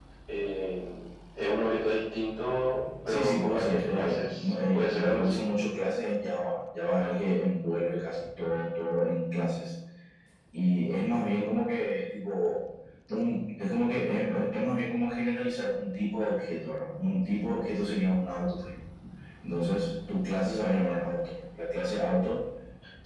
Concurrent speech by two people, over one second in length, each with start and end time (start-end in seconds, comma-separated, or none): 3.1-5.4